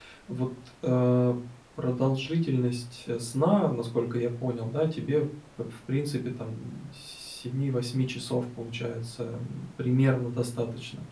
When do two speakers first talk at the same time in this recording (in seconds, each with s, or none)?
none